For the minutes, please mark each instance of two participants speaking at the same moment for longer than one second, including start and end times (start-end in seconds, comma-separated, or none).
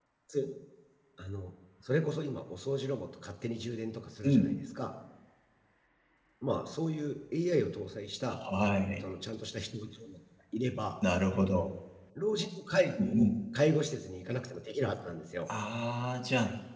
none